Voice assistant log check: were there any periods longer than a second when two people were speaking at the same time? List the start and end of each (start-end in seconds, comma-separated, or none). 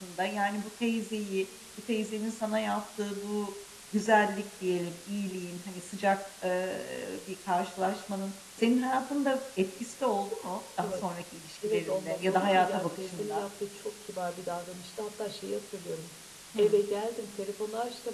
11.7-13.4